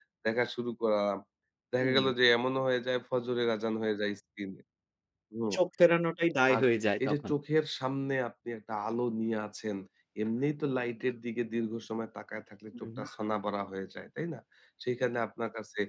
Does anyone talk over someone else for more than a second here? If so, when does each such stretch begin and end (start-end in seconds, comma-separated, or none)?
none